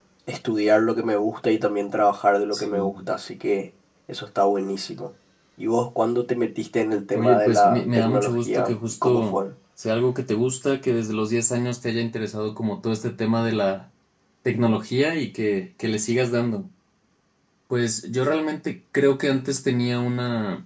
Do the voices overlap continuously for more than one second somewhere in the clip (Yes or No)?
Yes